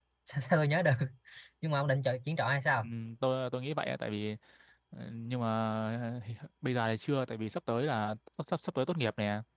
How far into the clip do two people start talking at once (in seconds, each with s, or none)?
none